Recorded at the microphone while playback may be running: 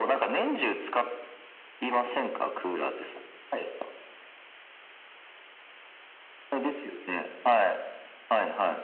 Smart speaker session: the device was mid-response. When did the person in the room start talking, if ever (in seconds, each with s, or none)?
none